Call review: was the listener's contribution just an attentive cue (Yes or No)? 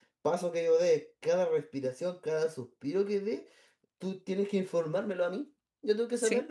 Yes